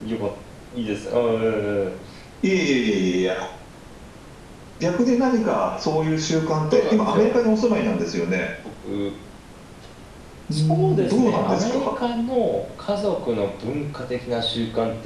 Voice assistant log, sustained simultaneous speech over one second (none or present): present